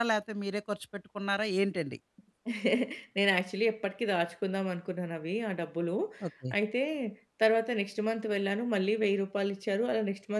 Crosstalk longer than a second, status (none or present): none